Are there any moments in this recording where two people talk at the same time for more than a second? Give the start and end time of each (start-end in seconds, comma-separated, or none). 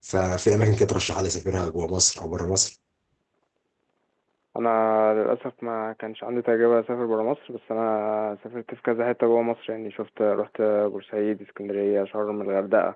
none